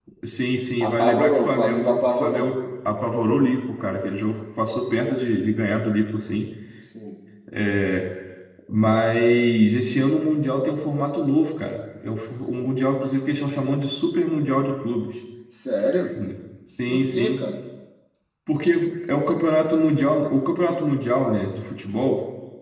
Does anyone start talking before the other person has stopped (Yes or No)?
Yes